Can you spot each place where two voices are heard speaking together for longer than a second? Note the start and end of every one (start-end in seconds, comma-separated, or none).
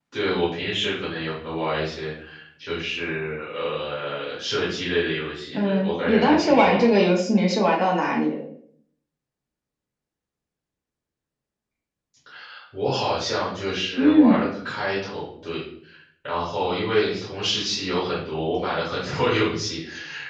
5.5-7.1